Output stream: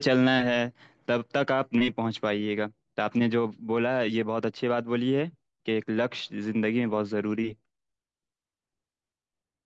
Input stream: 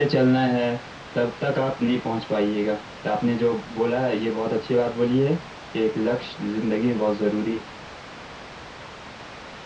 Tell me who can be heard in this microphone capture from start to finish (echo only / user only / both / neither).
echo only